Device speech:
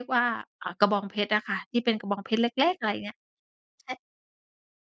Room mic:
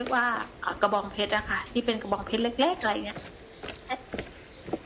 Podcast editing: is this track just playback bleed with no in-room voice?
Yes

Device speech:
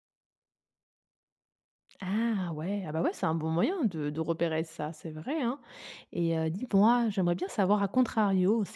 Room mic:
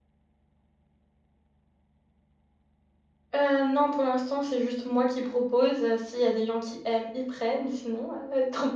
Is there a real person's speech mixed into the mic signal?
Yes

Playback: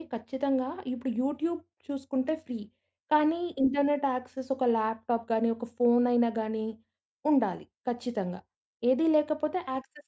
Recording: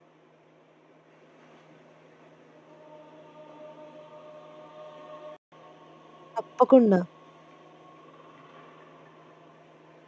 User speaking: Yes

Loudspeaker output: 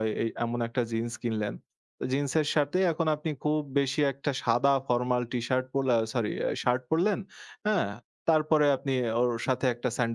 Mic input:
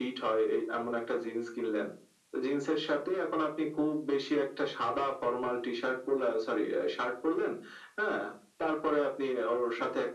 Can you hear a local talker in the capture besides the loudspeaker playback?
No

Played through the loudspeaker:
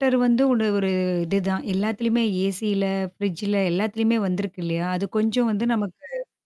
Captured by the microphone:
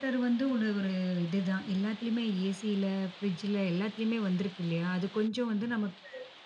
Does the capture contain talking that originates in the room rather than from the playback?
No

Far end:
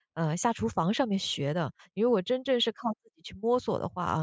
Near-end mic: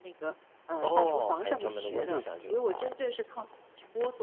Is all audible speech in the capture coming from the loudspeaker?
No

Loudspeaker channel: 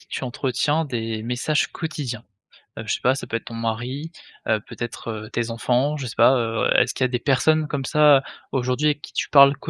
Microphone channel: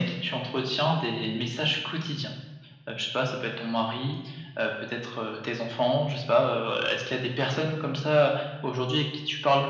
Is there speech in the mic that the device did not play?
No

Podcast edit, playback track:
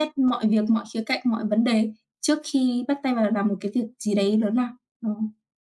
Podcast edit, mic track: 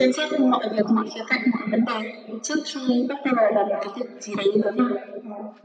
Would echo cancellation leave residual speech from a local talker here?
No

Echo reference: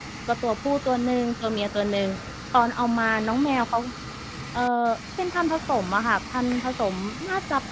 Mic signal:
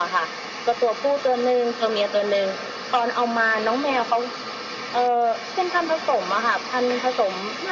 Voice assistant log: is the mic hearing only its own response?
Yes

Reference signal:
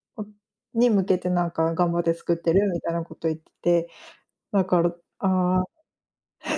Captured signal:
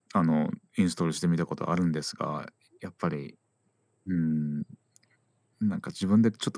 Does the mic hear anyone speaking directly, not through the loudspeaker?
Yes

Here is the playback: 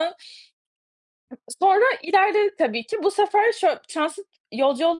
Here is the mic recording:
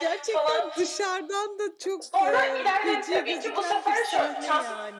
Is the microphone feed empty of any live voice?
No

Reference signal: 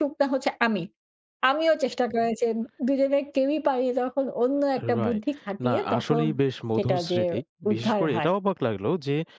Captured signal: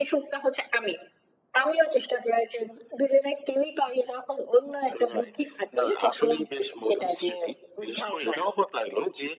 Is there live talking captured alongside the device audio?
No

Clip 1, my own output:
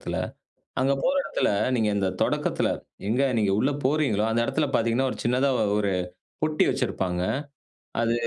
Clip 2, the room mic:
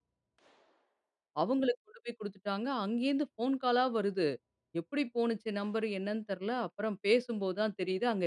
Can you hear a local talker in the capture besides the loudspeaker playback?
Yes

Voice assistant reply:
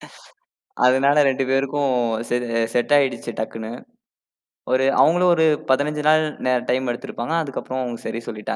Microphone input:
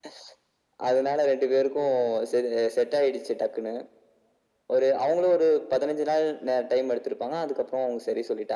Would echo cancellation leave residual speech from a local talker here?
No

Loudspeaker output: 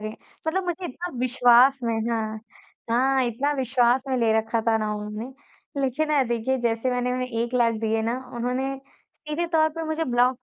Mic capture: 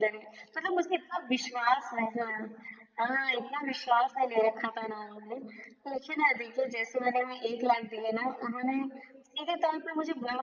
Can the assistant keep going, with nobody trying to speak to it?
Yes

